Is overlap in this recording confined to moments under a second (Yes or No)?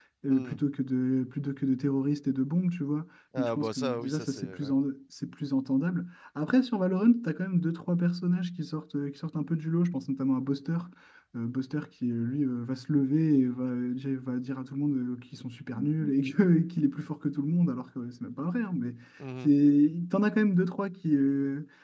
No